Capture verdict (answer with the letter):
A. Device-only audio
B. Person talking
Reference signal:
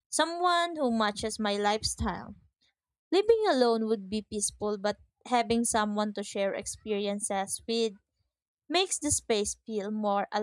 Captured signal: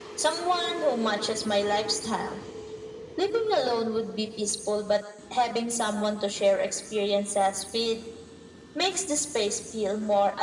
A